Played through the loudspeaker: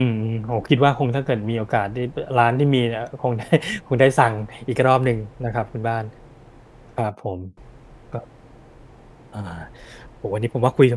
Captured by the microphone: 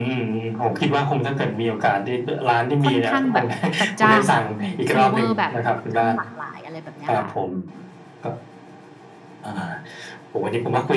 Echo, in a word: present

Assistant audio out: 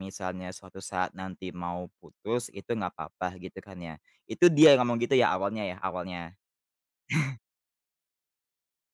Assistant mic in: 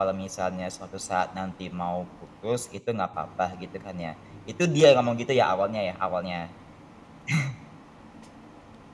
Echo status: present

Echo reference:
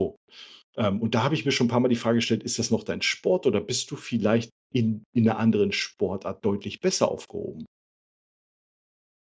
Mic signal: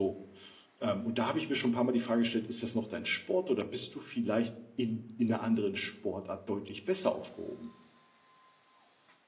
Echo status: present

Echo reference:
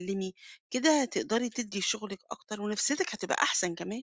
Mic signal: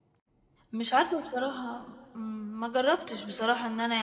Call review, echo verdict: none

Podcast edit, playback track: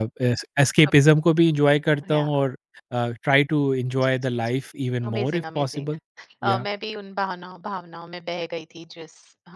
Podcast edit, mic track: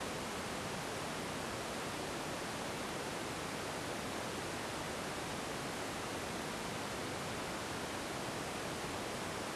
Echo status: none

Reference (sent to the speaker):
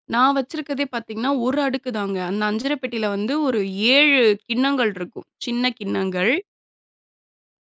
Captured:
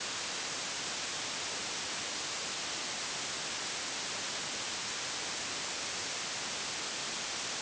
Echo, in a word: none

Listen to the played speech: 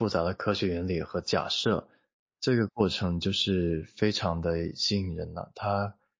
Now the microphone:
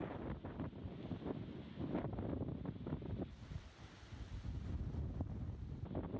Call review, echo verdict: none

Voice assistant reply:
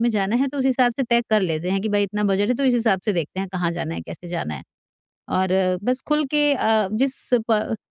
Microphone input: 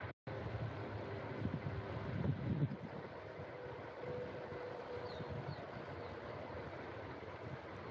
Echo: none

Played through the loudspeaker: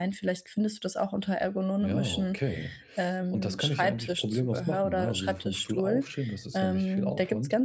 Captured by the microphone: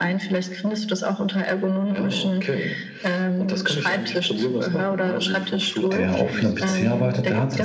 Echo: present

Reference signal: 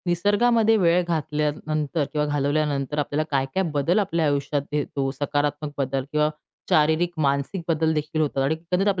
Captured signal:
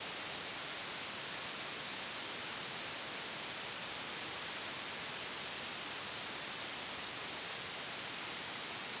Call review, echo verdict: none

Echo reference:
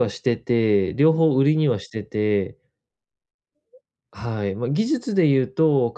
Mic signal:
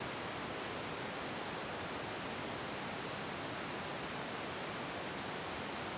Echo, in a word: none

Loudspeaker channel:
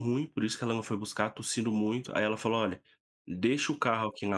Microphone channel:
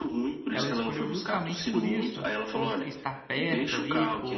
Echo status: present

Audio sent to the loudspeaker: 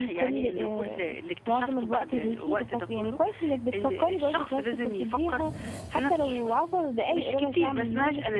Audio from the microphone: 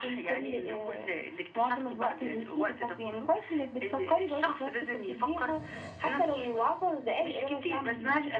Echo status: present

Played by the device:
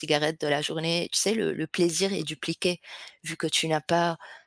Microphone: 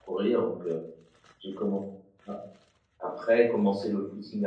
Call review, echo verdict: none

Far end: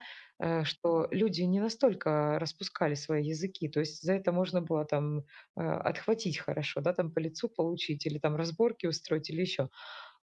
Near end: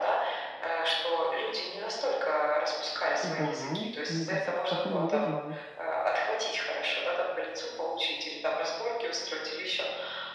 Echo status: present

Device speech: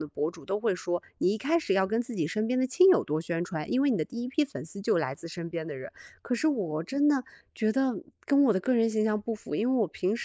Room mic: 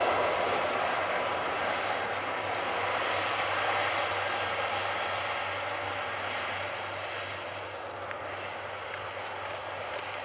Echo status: none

